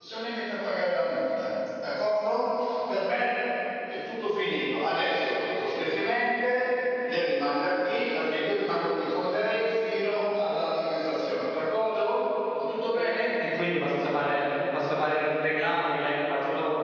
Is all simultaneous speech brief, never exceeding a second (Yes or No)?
Yes